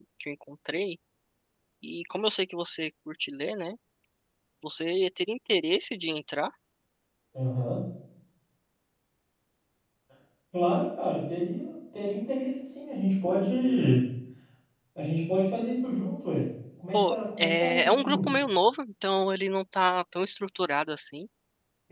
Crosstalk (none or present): present